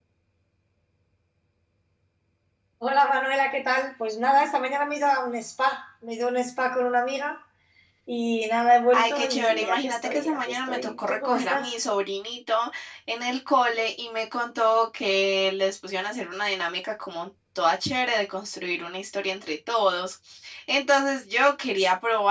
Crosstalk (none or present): present